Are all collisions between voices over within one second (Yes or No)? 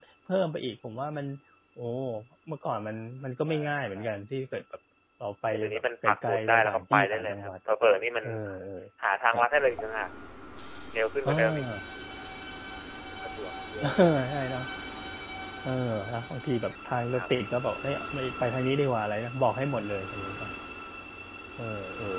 No